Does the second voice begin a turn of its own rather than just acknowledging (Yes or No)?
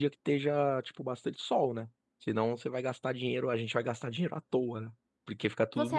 Yes